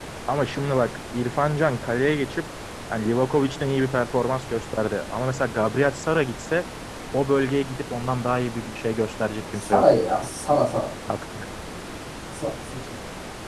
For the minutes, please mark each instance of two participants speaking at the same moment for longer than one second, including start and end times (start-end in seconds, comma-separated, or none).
none